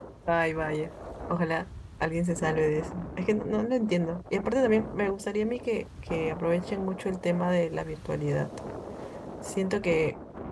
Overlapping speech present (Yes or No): No